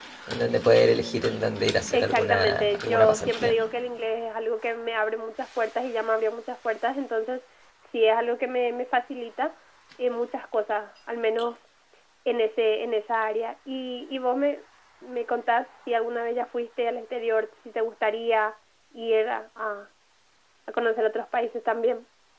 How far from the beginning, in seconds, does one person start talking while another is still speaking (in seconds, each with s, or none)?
1.9 s